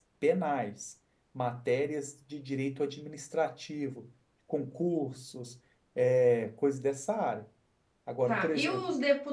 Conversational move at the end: taking over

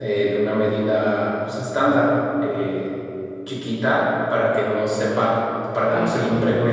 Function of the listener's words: listening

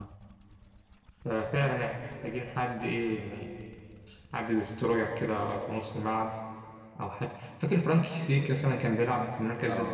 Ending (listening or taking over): taking over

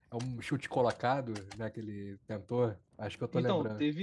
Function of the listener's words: taking over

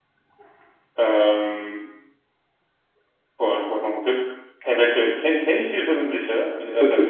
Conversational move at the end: taking over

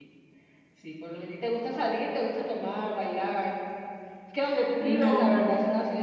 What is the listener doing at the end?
listening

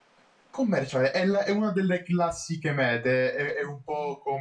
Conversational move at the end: listening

